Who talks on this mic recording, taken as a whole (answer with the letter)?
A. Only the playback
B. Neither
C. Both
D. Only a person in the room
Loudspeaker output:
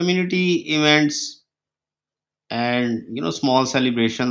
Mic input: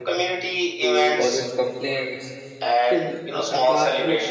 C